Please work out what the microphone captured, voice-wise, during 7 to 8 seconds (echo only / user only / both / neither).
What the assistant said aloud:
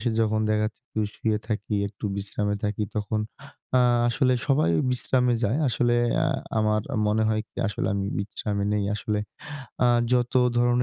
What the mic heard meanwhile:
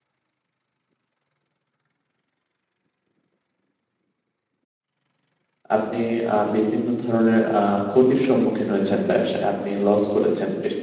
user only